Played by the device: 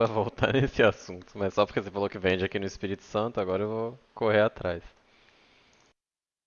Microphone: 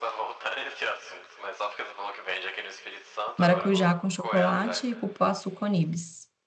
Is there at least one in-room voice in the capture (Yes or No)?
Yes